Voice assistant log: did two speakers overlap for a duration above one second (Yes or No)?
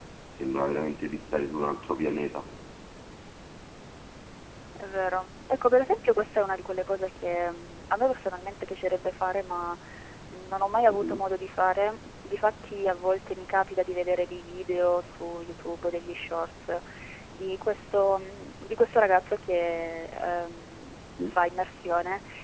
No